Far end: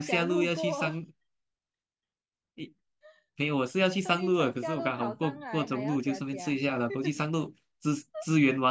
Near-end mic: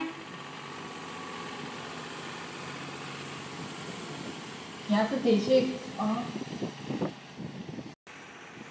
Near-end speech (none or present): present